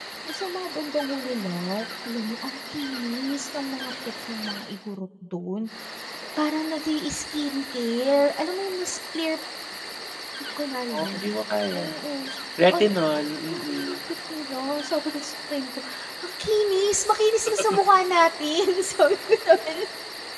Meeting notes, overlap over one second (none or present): none